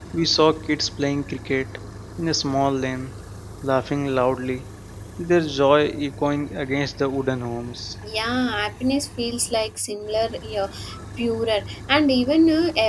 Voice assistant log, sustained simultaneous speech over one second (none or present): none